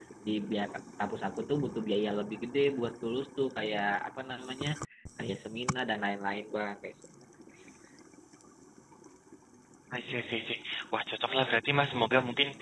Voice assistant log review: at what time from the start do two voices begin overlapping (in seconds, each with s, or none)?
none